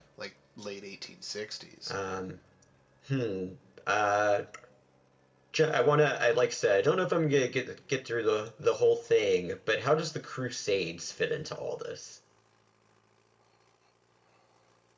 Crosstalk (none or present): none